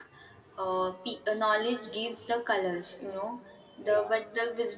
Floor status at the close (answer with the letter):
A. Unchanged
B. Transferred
A